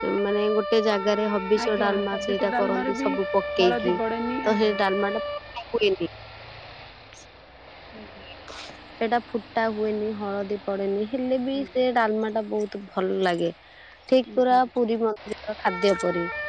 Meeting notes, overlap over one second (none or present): present